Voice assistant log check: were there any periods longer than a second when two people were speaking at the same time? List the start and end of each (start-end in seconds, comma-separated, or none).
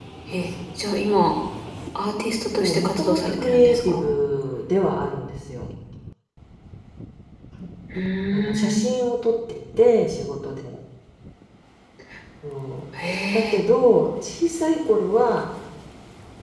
2.6-4.0